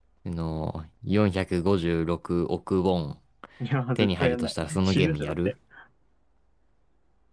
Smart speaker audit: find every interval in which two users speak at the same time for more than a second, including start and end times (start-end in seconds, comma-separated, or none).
4.0-5.5